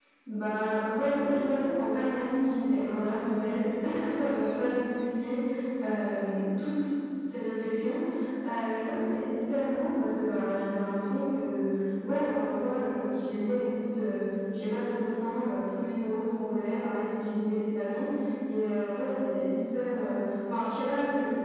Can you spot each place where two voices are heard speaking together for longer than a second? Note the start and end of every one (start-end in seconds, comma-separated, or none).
none